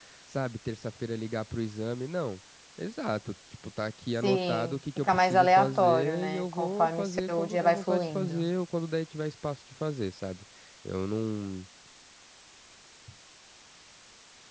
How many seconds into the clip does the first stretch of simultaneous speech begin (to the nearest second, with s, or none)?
4 s